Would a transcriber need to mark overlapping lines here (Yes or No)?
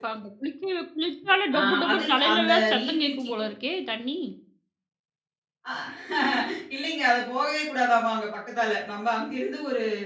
Yes